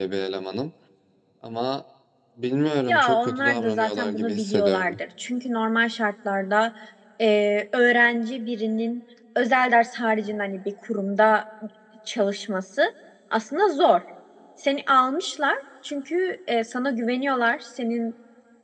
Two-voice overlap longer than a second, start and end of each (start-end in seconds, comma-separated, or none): 2.9-5.0